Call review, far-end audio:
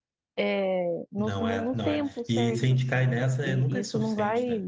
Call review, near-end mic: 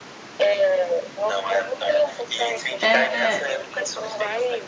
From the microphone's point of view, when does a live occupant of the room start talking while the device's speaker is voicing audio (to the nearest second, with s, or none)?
3 s